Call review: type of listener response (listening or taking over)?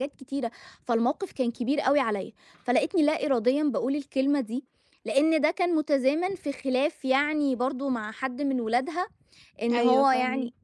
listening